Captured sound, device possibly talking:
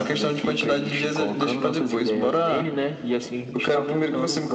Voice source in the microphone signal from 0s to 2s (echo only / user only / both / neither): echo only